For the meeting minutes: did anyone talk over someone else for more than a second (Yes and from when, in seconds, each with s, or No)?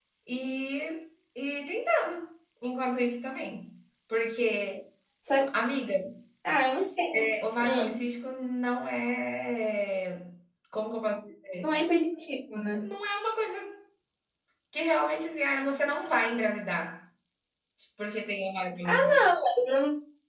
No